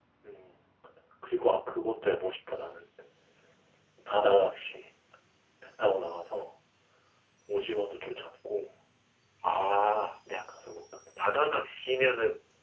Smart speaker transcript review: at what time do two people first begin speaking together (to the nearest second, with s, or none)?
none